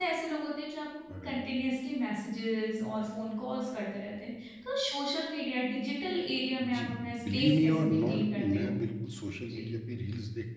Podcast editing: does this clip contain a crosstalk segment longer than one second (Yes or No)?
Yes